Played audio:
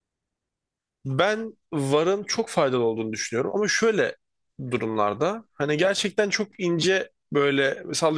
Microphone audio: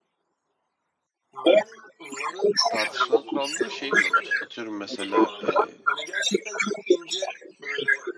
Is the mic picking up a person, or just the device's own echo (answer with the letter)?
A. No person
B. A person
B